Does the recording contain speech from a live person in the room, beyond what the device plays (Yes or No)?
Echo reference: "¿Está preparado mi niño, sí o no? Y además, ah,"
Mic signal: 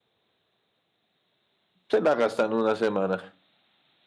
Yes